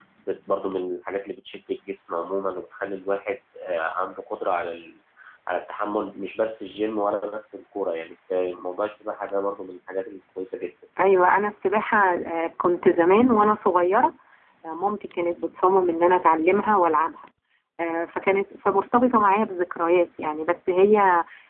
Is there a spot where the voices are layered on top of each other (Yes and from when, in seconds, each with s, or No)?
No